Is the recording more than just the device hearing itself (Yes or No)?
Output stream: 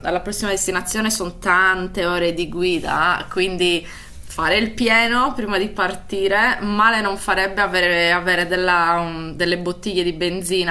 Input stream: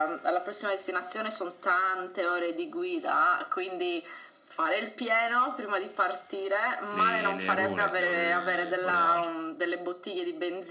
Yes